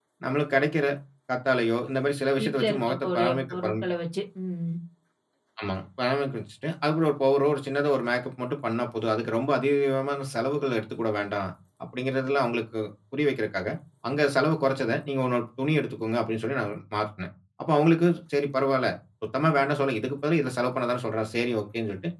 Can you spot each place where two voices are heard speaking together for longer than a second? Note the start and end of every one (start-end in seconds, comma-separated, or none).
2.4-3.7